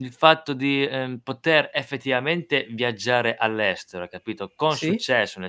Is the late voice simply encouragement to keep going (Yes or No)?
Yes